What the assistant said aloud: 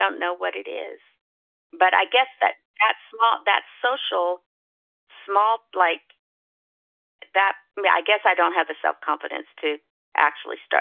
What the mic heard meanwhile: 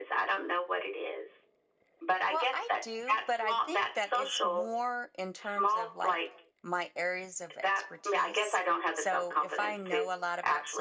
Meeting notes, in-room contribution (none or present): present